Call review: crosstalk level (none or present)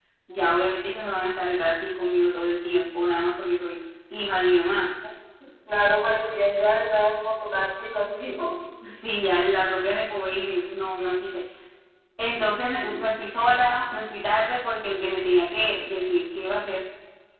none